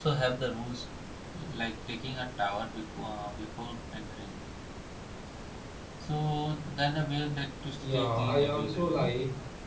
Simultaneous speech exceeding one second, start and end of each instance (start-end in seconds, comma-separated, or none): 7.8-9.1